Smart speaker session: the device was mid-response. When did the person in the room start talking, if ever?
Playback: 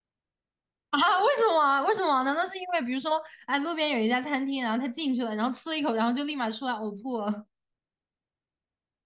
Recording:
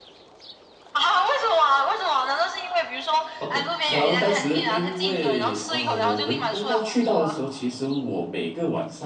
3.4 s

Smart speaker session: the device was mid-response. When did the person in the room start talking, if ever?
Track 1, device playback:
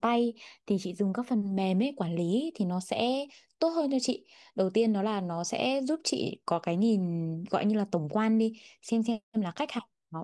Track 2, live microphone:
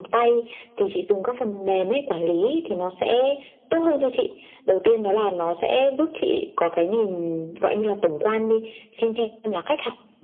none

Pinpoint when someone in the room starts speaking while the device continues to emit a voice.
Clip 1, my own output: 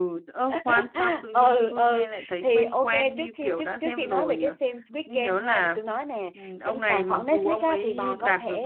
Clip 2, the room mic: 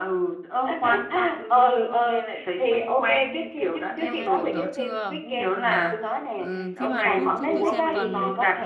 3.9 s

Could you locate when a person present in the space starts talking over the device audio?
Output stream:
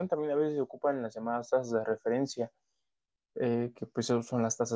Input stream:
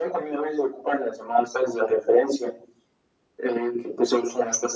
none

